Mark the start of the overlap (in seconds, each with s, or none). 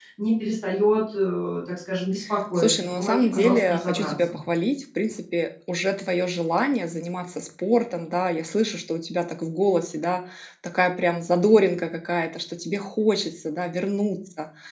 2.6 s